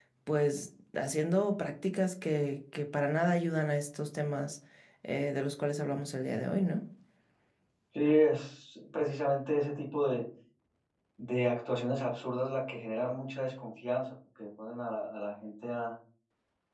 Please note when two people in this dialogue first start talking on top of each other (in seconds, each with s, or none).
none